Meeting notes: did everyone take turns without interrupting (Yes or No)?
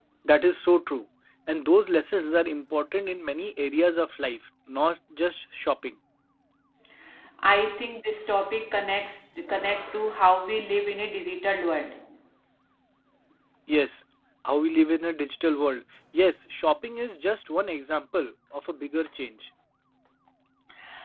Yes